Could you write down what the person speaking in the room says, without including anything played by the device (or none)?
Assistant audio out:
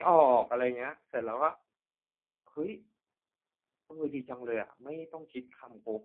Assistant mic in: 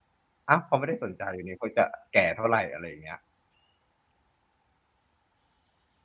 อ้าวเขาไม่ได้สนใจอยู่นี่เขาจะแก่เท่าไรอะไรอย่างเงี้ย